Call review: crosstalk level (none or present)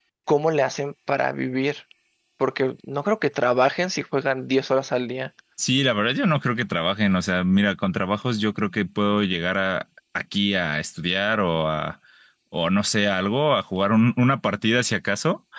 none